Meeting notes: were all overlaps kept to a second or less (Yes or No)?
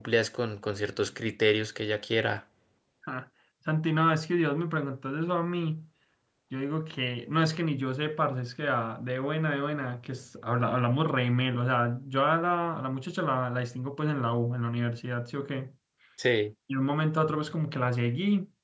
Yes